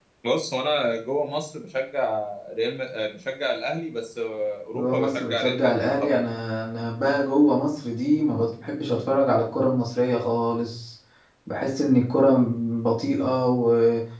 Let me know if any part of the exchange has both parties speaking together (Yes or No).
Yes